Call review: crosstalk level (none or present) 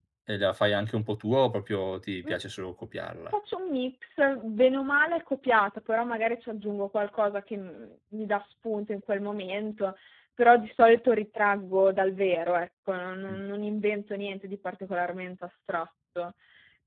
none